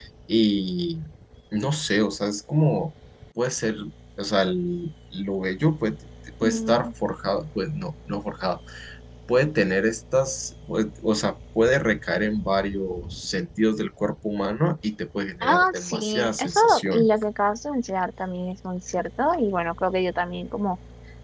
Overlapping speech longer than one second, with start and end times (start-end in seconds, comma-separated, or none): 15.4-17.1